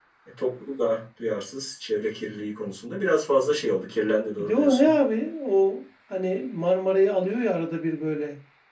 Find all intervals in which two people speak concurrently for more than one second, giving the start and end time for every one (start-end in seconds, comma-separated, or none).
none